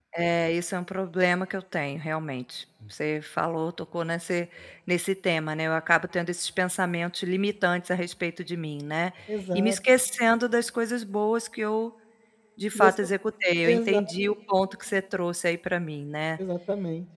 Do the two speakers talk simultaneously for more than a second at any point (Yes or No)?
No